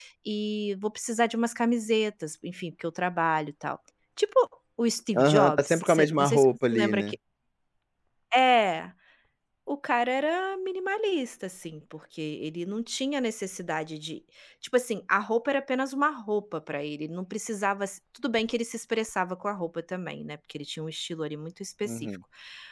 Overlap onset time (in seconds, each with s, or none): 5.2 s